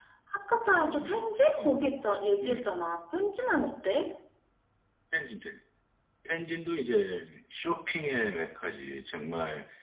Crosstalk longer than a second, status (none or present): none